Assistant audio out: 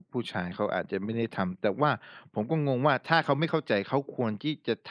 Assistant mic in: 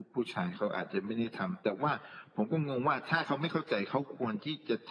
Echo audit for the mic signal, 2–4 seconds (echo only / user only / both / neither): echo only